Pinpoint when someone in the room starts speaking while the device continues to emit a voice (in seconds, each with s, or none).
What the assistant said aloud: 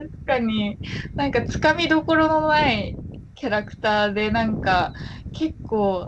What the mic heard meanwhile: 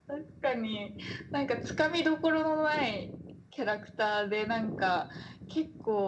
none